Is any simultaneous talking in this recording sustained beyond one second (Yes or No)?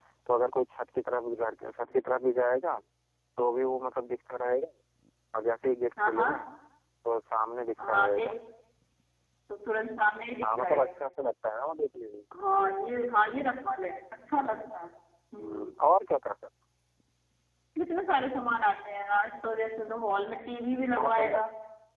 No